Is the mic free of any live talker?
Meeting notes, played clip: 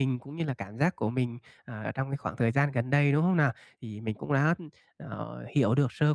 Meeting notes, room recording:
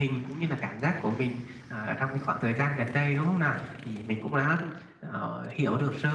Yes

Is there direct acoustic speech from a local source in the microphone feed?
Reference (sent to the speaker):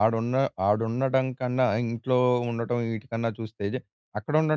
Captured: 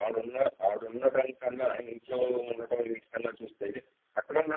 No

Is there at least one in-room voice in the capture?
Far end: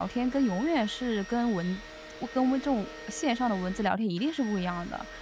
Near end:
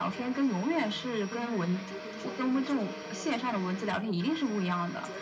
Yes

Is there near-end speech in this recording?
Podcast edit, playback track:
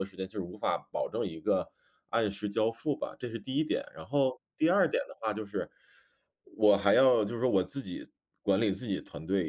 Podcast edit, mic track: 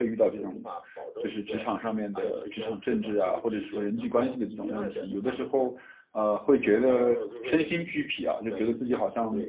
Yes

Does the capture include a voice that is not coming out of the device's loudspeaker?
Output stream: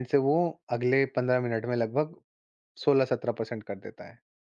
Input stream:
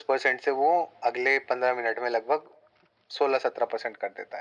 No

